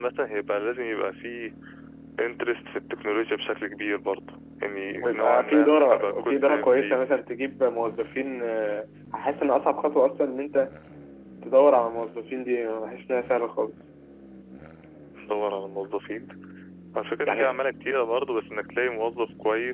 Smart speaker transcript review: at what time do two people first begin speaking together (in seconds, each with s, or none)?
4.9 s